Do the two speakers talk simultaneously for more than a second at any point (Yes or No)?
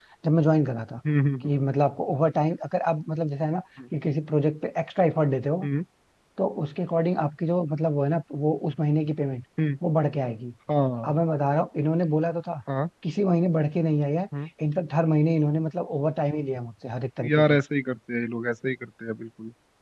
No